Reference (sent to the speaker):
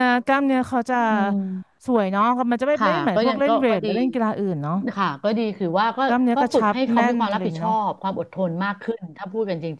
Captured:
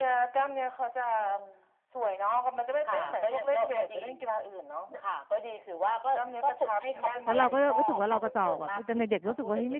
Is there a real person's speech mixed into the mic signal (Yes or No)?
Yes